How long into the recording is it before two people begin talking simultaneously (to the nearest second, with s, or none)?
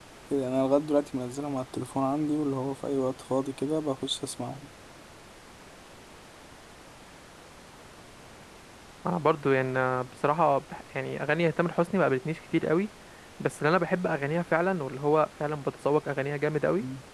none